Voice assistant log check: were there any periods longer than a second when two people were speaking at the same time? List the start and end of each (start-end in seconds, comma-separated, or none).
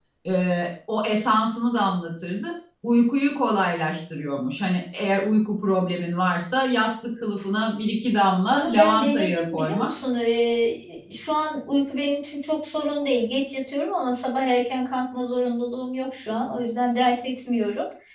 8.5-9.9